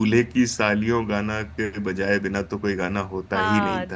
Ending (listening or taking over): taking over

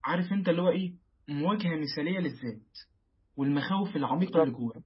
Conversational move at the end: taking over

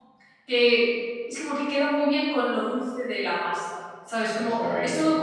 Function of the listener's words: listening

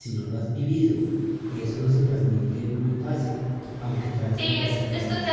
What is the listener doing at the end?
taking over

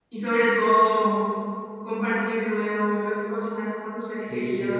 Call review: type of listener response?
listening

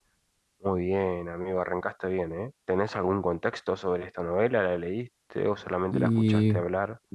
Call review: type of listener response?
taking over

